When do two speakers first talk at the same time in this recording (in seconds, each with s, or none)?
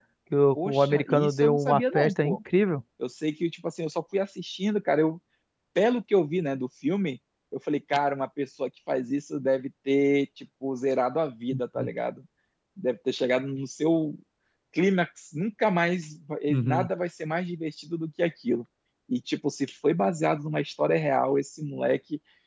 0.6 s